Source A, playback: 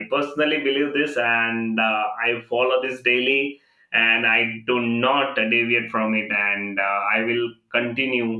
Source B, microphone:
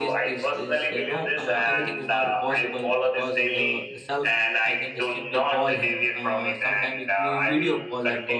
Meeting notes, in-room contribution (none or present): present